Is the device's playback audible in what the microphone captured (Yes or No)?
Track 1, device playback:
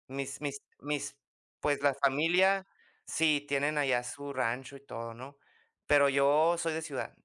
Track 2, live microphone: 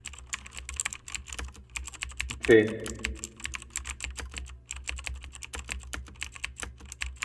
No